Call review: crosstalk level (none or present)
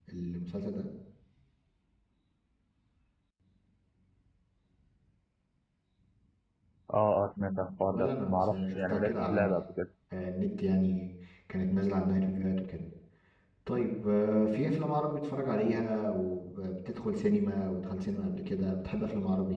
present